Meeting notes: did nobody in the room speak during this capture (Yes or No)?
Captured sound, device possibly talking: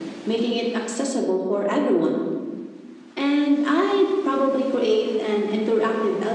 Yes